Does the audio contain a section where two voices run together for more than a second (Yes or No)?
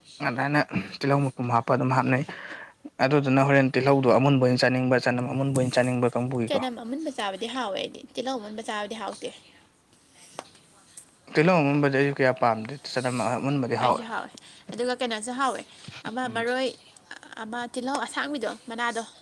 No